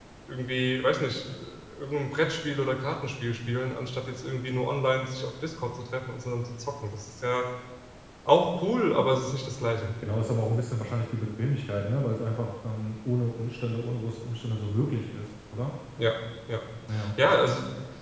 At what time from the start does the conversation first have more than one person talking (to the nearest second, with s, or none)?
none